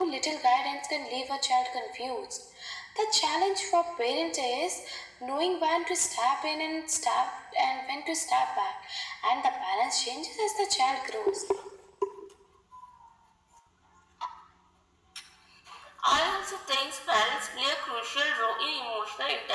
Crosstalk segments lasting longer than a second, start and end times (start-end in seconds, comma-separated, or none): none